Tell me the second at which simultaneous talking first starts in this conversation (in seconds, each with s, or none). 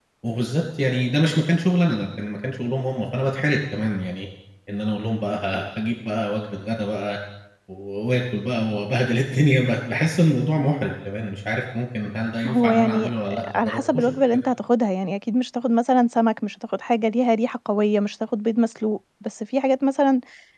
12.4 s